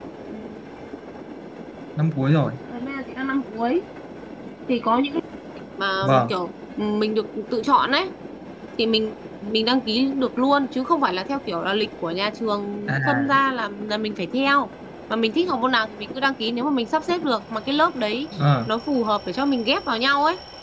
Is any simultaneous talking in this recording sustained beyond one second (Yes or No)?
No